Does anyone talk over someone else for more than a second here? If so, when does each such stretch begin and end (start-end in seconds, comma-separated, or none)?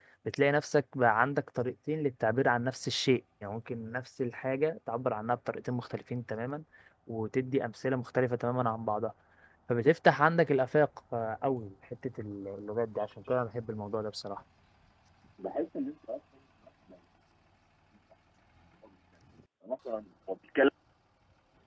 none